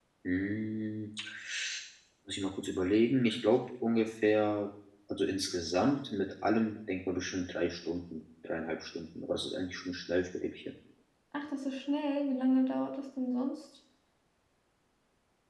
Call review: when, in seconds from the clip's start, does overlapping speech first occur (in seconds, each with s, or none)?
none